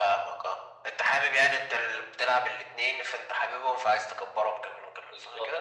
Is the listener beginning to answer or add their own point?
Yes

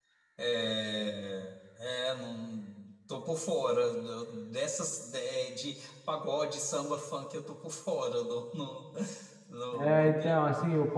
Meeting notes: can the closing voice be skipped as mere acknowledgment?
No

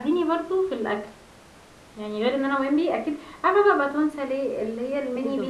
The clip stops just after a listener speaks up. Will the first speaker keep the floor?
Yes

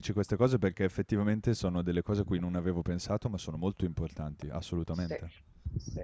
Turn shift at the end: Yes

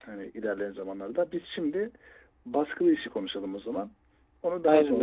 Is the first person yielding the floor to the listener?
Yes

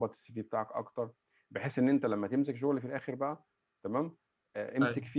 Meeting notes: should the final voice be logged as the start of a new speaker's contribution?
No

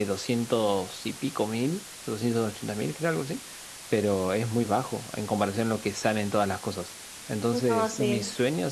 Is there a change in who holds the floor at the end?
No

